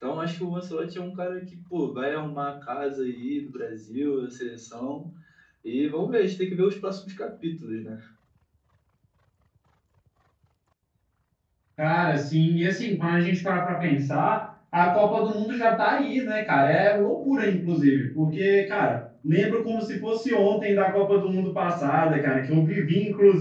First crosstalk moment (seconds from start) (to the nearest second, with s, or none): none